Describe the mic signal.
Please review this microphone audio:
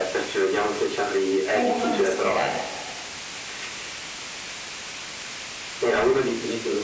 both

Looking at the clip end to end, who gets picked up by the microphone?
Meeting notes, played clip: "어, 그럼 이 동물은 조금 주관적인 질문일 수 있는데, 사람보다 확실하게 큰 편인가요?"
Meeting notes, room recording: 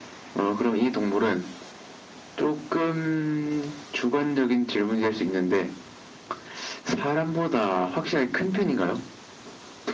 echo only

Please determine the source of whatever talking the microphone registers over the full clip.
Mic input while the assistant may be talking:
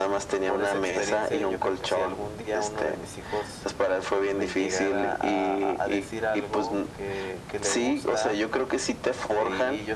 both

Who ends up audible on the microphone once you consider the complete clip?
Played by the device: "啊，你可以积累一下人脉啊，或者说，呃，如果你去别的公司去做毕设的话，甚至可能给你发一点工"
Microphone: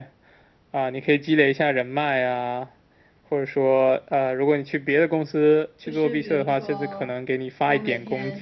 both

